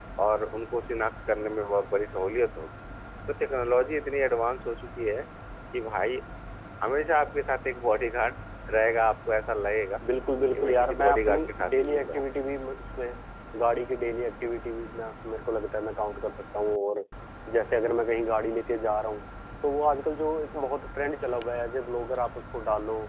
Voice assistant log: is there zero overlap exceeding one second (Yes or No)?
No